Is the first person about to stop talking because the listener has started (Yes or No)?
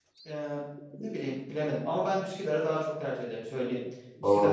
Yes